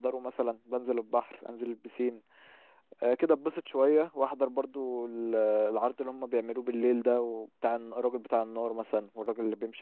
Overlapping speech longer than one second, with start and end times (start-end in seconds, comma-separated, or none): none